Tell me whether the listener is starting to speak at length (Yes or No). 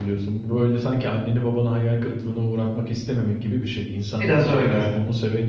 No